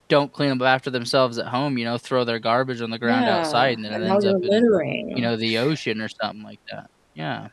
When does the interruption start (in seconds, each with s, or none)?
3.0 s